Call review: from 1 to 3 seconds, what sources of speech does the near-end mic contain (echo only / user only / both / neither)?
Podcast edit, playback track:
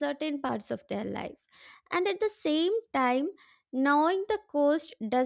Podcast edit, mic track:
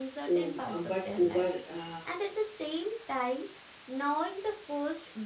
both